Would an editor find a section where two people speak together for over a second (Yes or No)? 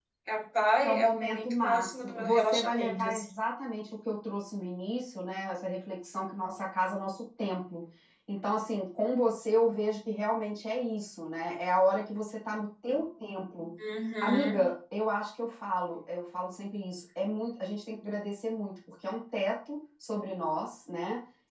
Yes